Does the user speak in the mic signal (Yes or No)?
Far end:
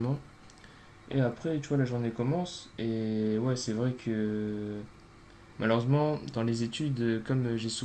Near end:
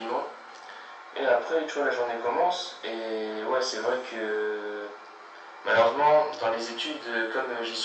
No